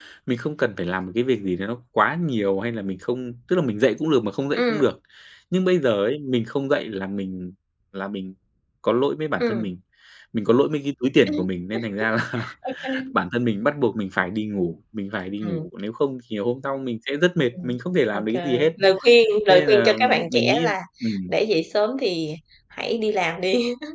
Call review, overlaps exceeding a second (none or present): present